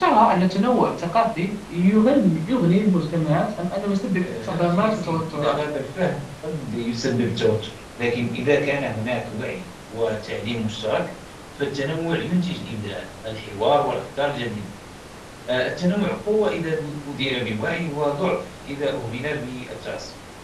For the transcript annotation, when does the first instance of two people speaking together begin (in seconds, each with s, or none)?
4.2 s